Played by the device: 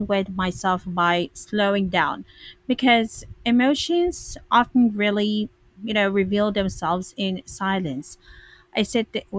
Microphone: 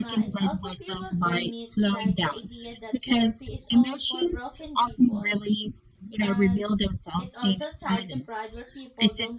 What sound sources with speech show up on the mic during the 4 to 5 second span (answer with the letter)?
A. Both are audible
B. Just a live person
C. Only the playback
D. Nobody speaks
A